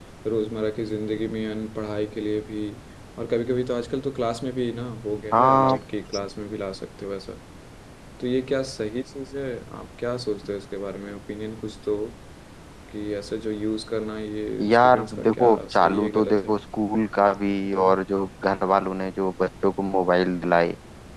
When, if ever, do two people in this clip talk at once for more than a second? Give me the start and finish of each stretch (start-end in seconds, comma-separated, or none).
14.7-16.5